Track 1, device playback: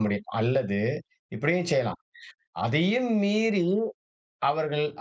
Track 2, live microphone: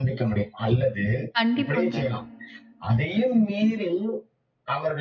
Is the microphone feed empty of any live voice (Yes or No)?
No